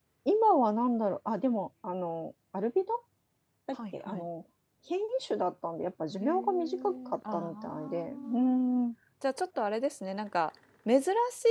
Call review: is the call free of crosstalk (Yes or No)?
No